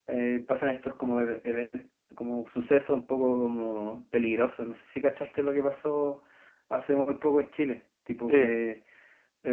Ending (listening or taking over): listening